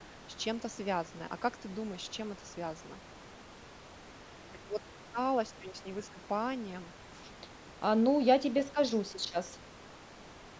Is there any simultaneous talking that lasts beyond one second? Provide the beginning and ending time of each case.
none

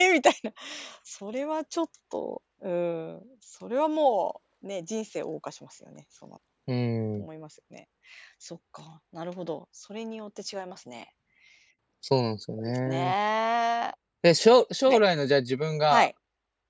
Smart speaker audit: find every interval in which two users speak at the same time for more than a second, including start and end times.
none

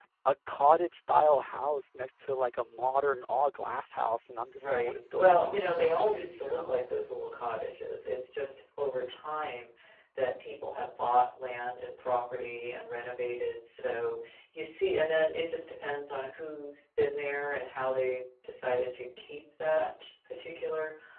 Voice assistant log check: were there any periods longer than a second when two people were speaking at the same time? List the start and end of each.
4.6-6.8

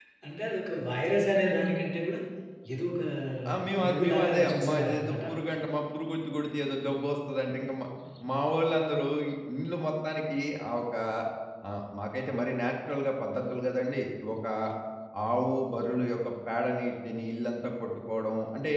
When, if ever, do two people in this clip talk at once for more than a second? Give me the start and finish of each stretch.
3.8-5.2

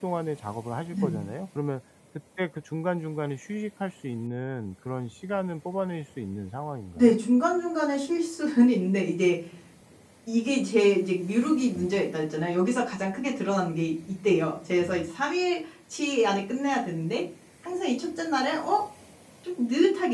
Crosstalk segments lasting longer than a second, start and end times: none

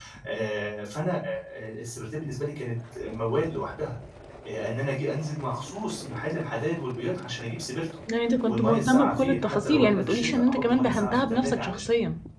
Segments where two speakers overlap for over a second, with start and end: 8.4-11.8

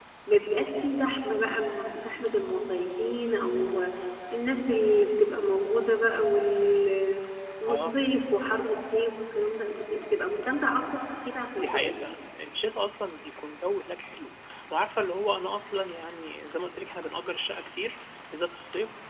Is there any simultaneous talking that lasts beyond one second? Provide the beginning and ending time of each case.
none

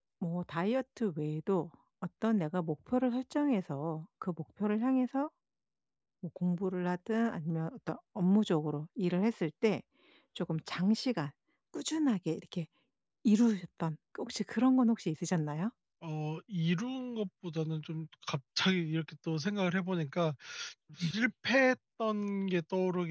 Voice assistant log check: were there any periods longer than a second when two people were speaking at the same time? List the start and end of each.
none

